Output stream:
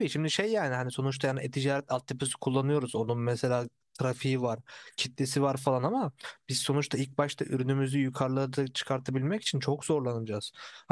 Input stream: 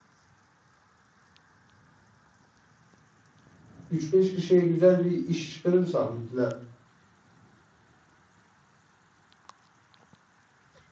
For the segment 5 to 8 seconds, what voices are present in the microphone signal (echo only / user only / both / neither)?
user only